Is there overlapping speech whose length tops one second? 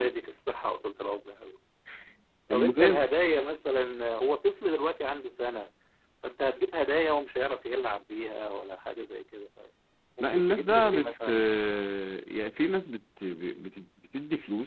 Yes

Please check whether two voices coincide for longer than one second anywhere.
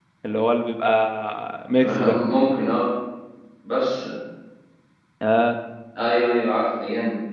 No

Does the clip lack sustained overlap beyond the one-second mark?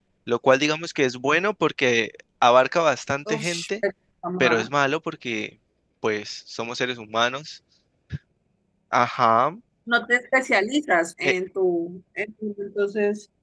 Yes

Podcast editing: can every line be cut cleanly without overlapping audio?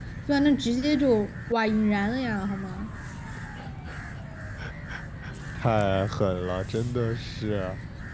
Yes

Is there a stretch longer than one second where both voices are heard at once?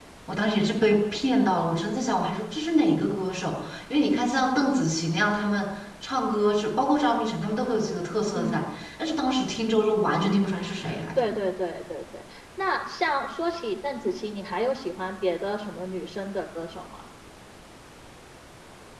No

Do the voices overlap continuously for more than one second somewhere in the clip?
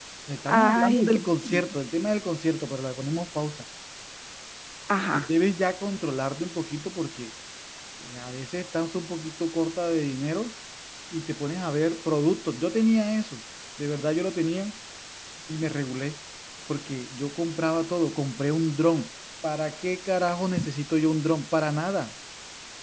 Yes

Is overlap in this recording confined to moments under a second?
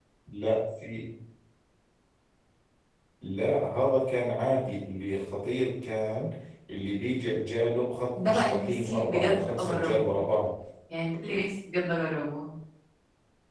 No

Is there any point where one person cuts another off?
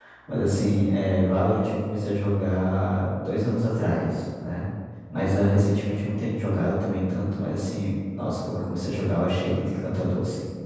No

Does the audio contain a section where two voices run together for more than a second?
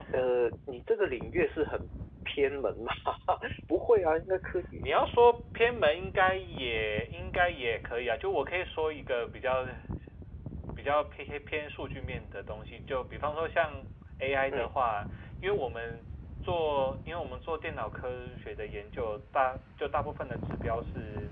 No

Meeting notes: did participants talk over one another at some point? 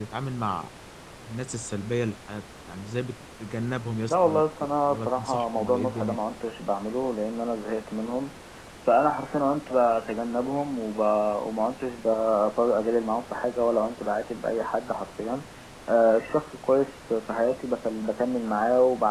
Yes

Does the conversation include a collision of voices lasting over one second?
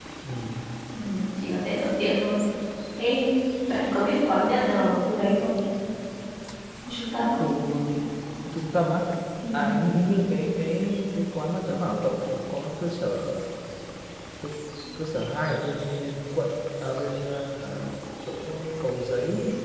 No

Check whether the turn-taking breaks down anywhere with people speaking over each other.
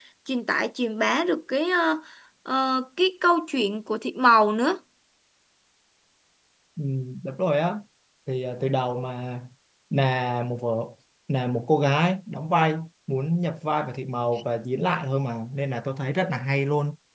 No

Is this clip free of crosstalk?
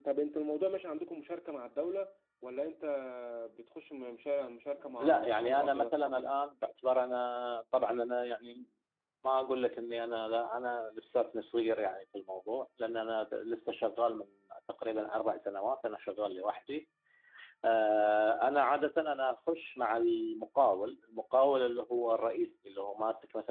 No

